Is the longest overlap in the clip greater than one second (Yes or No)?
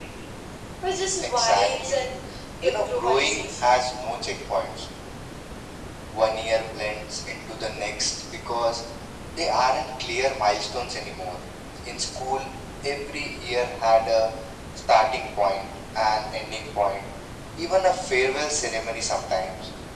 Yes